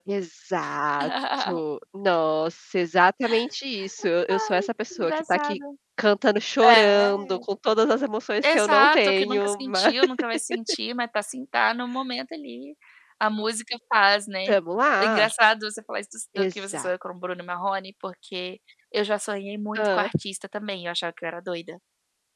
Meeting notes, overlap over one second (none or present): present